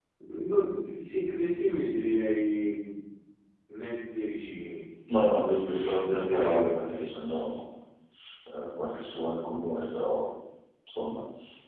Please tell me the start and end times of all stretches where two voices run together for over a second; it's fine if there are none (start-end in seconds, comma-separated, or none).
5.2-7.1